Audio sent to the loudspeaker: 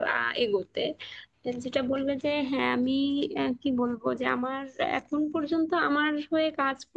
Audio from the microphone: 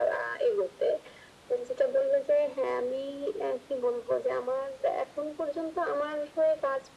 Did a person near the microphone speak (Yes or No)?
No